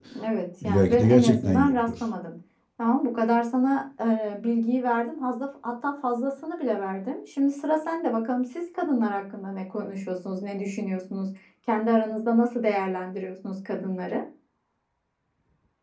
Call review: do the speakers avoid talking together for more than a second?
No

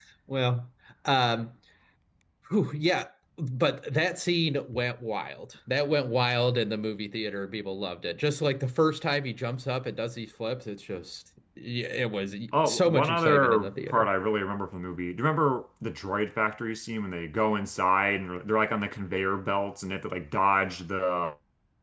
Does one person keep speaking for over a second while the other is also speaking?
Yes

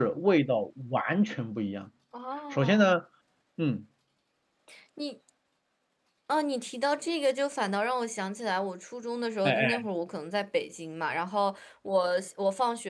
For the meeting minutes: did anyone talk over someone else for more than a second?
No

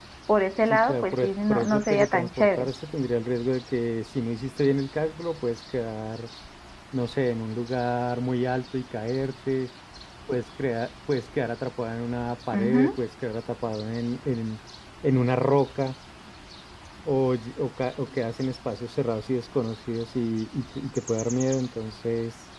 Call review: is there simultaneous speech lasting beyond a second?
Yes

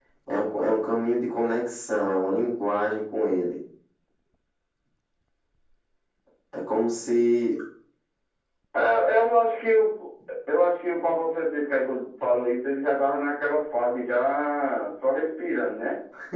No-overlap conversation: Yes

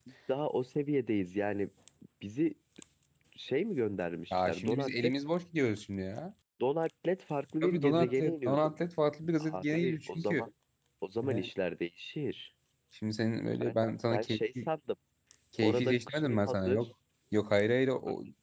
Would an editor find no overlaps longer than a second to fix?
No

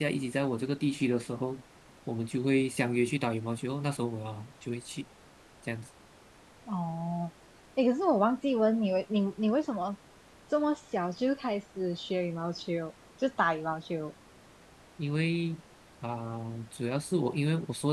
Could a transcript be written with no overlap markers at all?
Yes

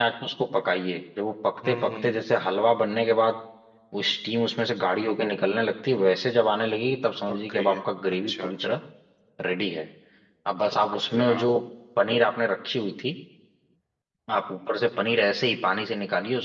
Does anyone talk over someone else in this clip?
Yes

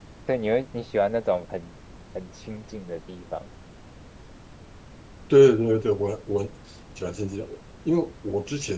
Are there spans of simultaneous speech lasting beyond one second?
No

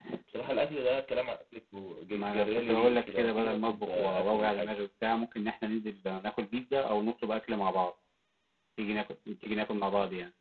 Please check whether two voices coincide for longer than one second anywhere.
Yes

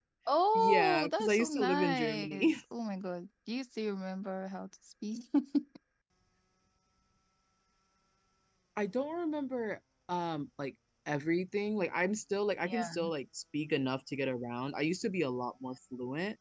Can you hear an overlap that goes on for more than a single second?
Yes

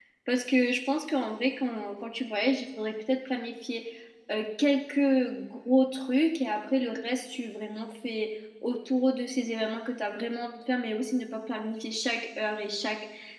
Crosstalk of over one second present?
No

